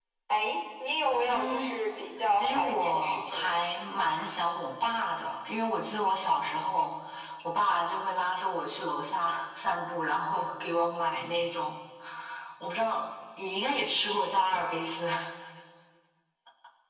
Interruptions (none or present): present